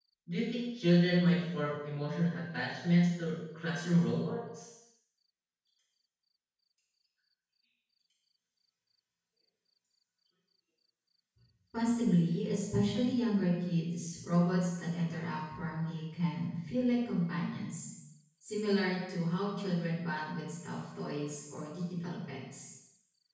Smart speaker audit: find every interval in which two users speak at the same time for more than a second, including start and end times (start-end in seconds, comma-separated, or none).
none